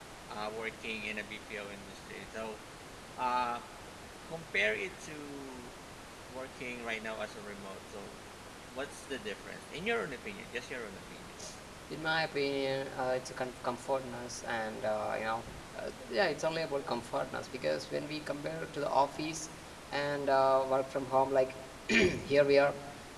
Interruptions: none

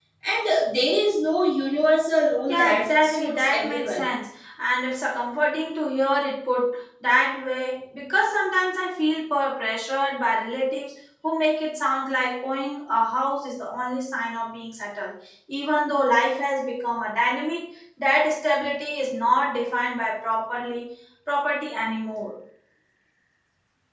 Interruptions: present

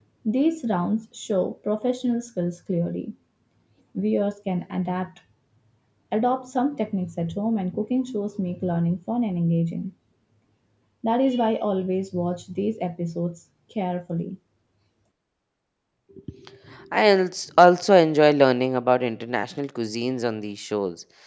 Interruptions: none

